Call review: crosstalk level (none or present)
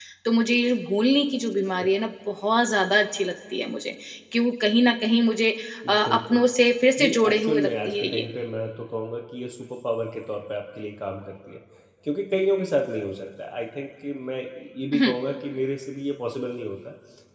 present